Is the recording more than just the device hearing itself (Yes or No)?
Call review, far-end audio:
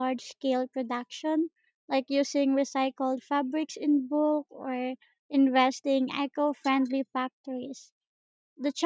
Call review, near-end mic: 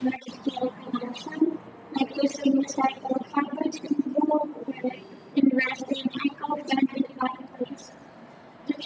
No